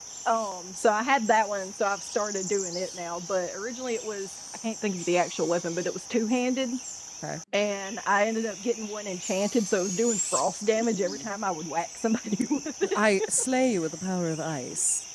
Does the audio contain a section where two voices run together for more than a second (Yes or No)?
No